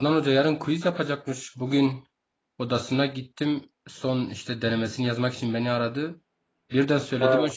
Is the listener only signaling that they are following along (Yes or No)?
Yes